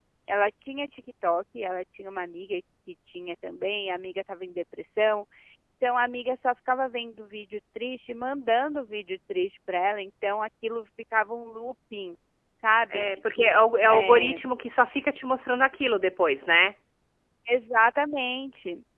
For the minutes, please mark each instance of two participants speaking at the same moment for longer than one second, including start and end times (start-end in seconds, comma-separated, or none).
12.9-14.4